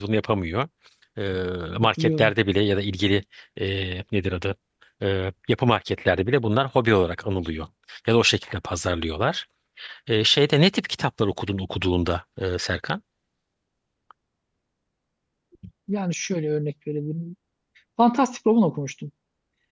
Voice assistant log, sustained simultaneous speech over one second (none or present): none